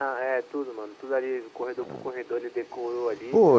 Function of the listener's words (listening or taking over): taking over